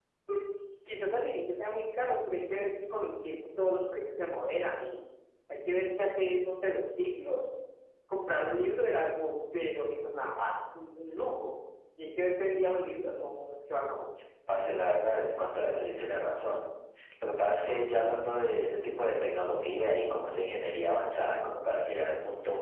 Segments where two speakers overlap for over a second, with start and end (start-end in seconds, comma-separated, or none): none